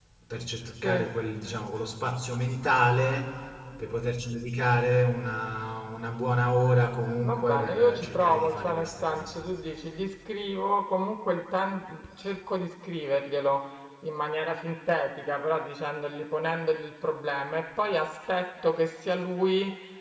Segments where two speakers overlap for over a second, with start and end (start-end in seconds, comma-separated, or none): 7.2-9.4